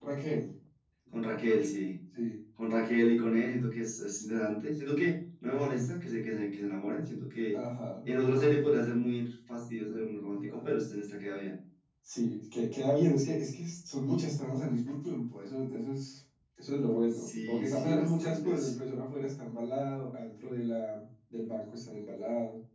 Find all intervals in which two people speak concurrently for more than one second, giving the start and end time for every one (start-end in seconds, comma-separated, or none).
17.1-18.7